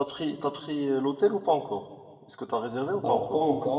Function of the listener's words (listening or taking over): taking over